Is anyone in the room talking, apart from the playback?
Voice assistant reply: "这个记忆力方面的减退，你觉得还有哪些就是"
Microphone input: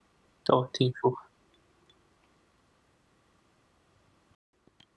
Yes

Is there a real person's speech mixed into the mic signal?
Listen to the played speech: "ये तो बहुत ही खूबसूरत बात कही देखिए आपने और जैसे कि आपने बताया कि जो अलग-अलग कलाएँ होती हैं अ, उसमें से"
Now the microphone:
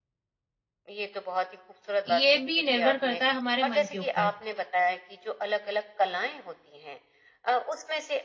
Yes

